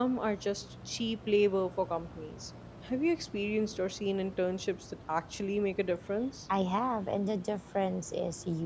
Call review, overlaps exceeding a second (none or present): none